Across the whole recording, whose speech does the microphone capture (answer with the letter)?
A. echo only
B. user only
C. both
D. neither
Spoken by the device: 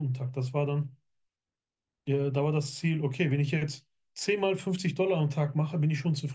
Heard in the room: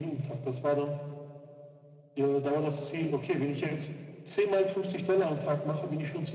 A